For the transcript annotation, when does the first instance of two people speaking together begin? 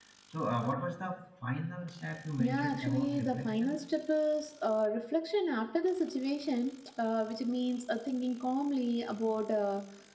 2 s

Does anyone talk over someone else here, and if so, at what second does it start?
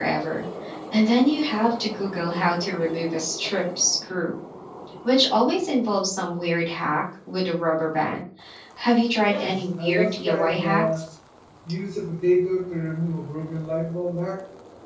9 s

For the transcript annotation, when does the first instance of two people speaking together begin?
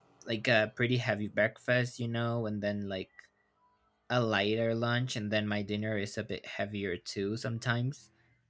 none

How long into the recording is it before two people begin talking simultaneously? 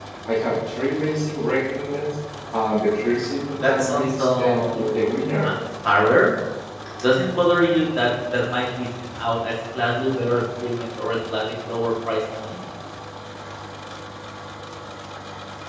4 s

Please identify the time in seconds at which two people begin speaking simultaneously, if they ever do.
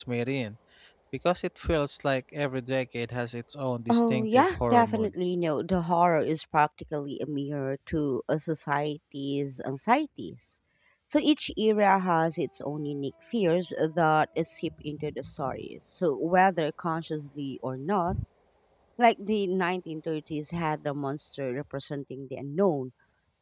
4 s

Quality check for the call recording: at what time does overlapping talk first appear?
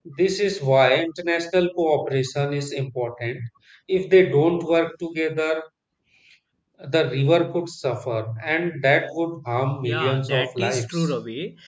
10 s

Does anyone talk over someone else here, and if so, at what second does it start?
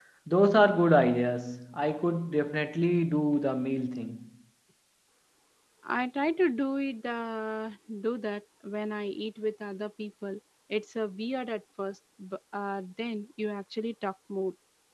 none

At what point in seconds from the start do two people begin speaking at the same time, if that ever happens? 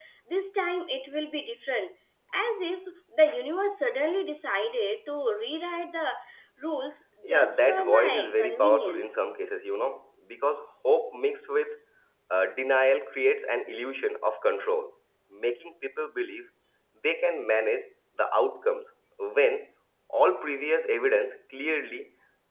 7 s

